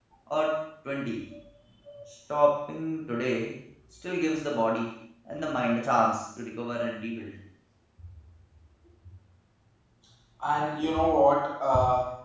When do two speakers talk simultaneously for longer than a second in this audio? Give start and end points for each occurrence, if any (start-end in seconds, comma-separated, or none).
none